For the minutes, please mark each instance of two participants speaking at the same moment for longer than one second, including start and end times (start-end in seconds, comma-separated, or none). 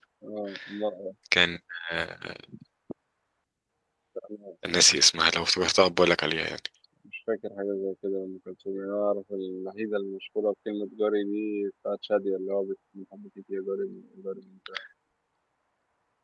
none